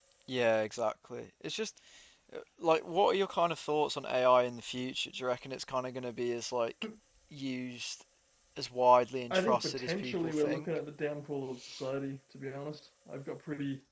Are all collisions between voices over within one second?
No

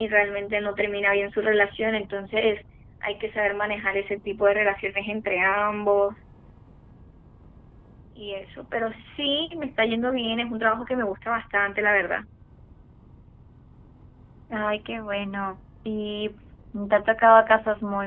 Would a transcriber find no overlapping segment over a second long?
Yes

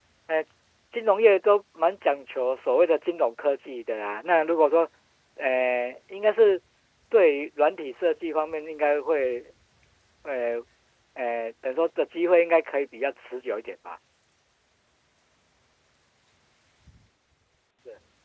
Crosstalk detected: No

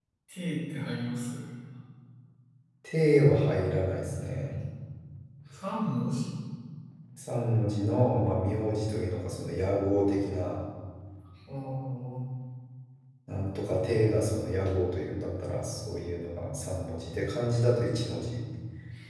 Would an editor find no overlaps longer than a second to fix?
Yes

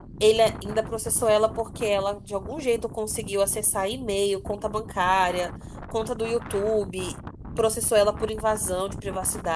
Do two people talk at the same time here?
No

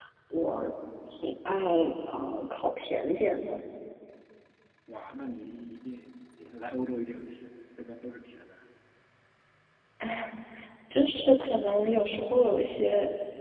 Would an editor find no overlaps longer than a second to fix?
Yes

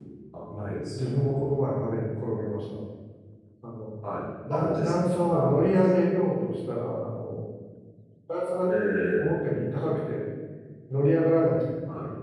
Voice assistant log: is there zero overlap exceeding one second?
No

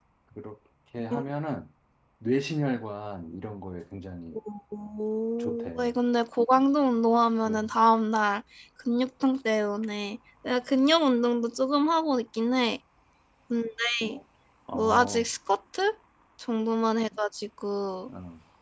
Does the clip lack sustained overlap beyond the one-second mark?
Yes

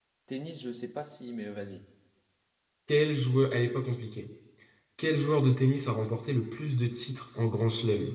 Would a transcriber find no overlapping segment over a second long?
Yes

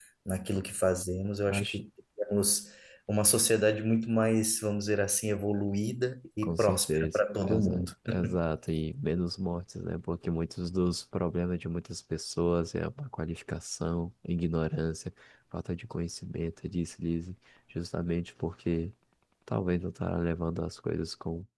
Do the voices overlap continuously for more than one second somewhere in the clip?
Yes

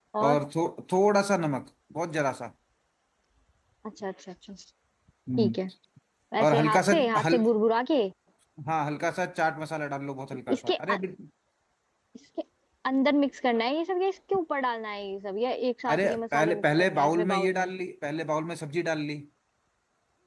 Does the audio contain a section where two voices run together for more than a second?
Yes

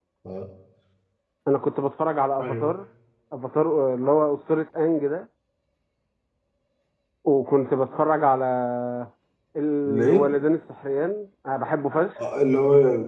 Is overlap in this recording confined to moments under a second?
Yes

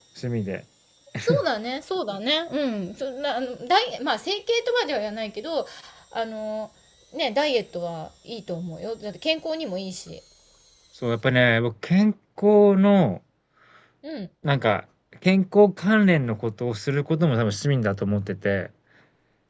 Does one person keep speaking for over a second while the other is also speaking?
No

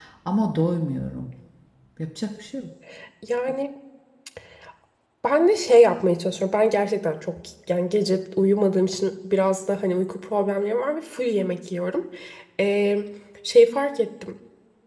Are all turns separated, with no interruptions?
Yes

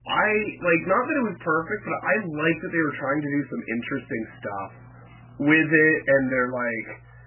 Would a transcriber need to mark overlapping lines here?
No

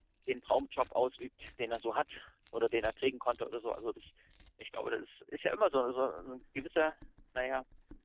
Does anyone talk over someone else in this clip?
No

